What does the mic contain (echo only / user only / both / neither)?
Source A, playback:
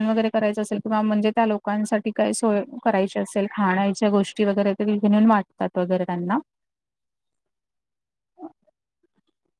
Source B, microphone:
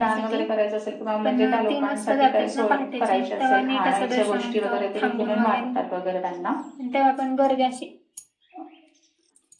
both